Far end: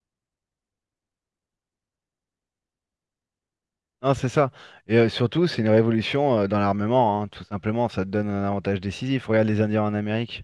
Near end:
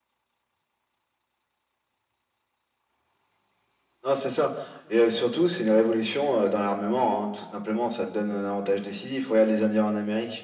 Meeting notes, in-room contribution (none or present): none